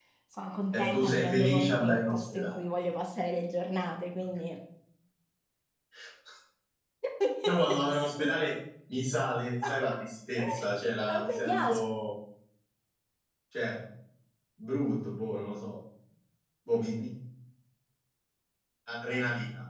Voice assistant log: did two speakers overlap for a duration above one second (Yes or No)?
Yes